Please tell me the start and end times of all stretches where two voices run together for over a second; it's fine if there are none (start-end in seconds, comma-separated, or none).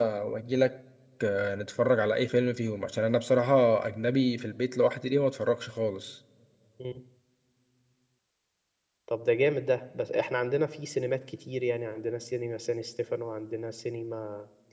none